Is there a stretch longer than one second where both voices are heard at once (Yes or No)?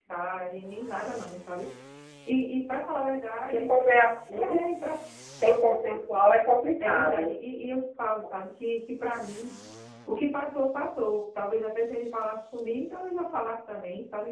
No